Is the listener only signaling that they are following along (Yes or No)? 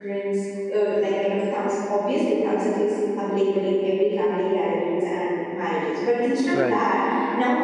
Yes